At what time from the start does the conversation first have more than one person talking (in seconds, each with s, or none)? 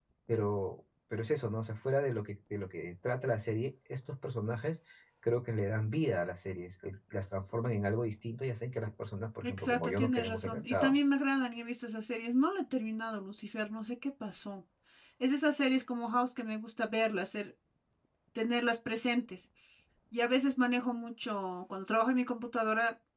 9.4 s